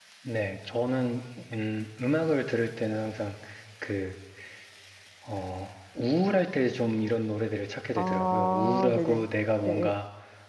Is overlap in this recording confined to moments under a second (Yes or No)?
No